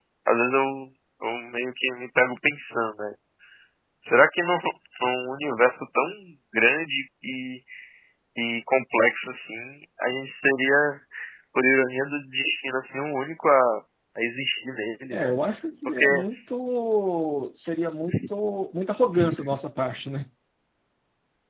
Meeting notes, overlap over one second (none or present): none